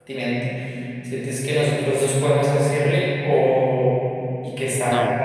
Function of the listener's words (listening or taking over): listening